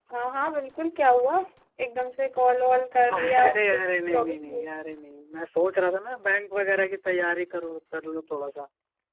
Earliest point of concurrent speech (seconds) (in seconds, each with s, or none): 3.1 s